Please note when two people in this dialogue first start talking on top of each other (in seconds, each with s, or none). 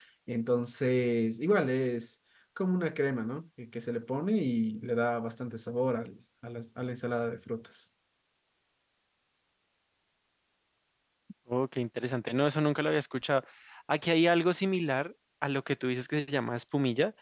none